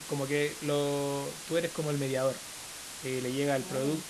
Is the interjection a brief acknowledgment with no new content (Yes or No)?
Yes